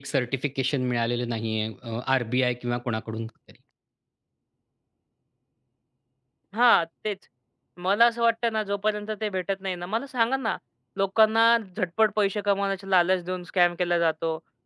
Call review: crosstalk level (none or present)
none